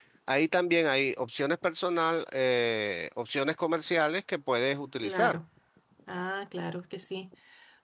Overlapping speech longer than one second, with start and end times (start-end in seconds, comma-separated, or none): none